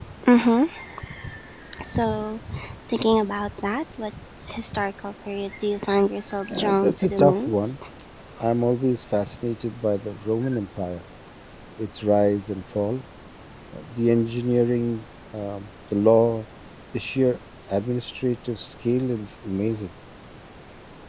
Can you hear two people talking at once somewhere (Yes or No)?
Yes